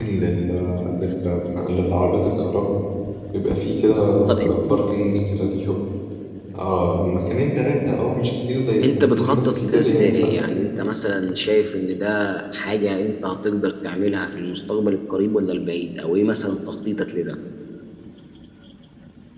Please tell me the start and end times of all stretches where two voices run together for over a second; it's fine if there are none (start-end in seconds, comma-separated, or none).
8.8-10.4